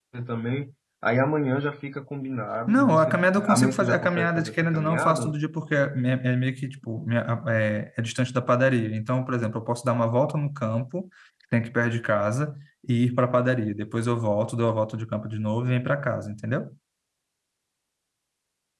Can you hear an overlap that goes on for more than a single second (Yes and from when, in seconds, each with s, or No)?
Yes, from 2.7 s